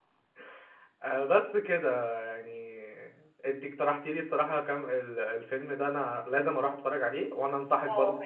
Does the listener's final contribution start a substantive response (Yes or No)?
Yes